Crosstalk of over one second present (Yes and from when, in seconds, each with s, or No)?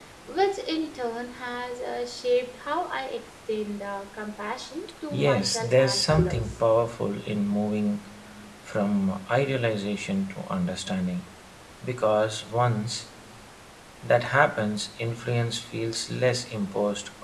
Yes, from 5.1 s